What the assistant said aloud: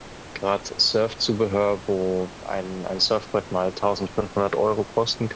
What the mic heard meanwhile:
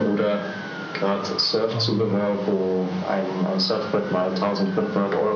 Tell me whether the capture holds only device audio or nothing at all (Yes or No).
No